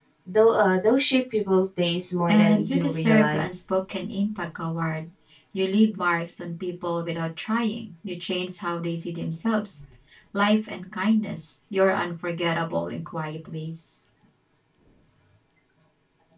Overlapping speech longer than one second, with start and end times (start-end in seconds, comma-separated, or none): 2.3-3.6